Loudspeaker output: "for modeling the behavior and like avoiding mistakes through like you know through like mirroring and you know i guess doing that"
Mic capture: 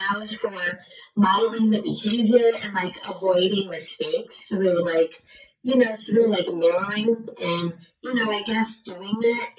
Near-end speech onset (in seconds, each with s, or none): none